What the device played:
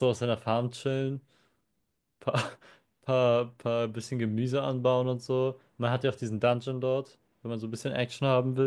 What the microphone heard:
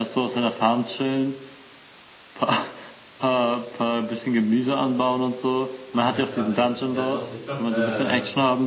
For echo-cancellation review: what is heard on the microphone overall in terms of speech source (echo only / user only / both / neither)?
both